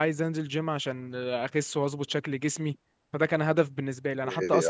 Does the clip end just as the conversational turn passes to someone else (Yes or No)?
No